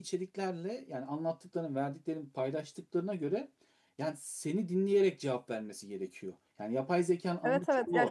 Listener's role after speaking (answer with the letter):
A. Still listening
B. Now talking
B